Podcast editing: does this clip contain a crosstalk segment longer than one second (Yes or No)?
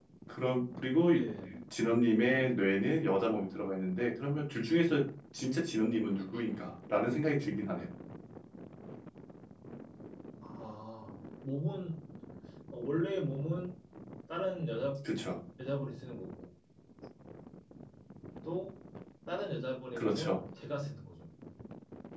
No